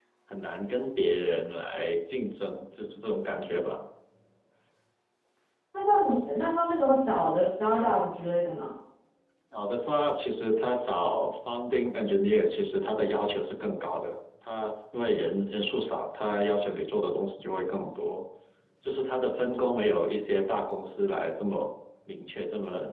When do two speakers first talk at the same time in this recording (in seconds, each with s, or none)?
none